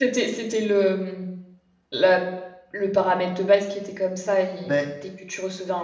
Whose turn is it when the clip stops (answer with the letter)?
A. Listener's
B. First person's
B